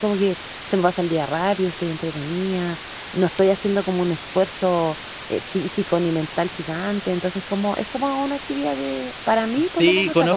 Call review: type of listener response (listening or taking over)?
taking over